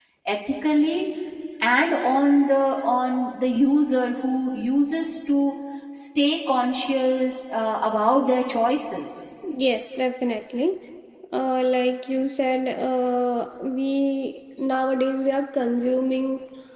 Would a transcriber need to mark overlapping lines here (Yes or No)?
No